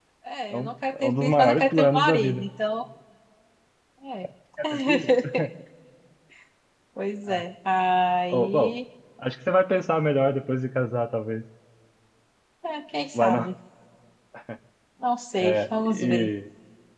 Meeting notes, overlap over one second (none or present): present